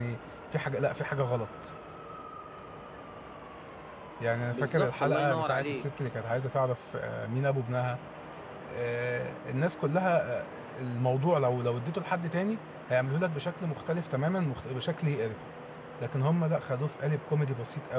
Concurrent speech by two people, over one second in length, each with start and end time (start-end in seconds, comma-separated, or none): 4.5-5.8